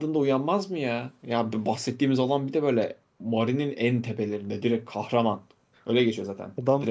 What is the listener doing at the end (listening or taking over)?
taking over